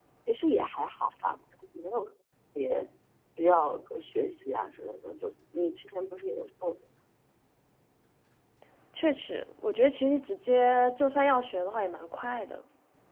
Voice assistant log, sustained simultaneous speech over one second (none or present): none